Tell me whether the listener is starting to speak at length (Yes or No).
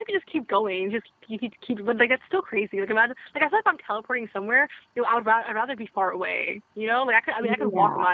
No